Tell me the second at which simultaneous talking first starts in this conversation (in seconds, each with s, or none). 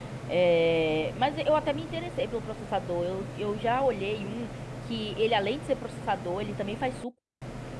none